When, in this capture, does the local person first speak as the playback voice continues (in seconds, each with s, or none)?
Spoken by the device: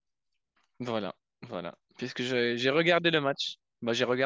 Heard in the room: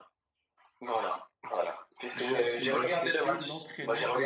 2.1 s